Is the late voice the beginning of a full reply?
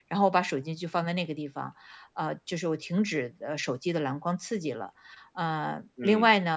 No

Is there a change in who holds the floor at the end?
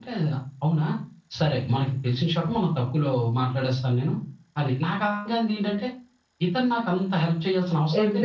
Yes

